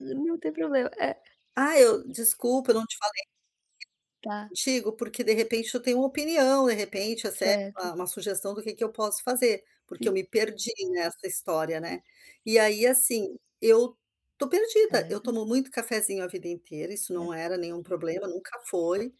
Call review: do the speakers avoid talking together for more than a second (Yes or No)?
Yes